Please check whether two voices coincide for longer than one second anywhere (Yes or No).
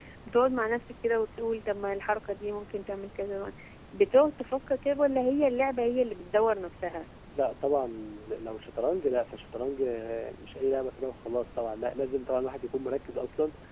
No